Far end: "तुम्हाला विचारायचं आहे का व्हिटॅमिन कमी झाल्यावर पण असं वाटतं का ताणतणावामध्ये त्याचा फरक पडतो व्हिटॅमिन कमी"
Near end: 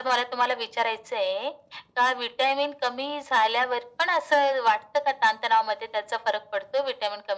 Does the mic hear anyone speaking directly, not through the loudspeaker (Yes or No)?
No